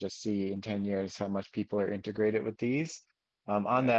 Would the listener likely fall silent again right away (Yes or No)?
Yes